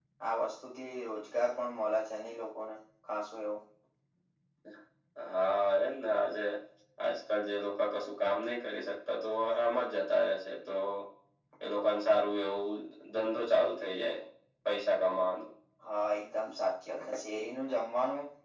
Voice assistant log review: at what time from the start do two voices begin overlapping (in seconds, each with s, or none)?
none